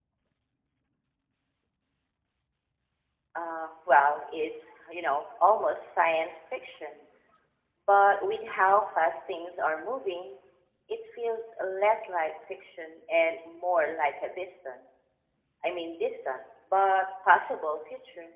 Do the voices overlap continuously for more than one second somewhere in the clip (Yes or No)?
No